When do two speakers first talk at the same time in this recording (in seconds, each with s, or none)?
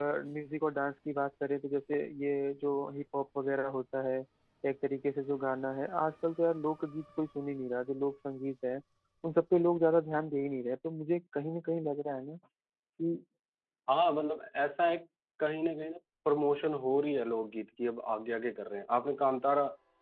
none